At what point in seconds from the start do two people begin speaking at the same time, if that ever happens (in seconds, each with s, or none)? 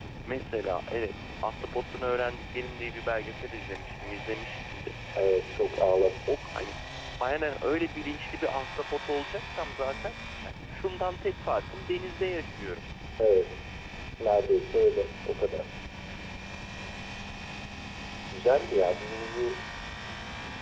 none